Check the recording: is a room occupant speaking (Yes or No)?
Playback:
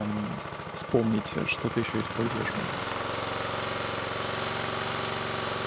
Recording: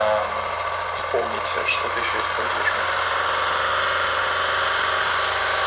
No